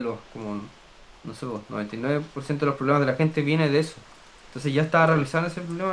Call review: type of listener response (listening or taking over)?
listening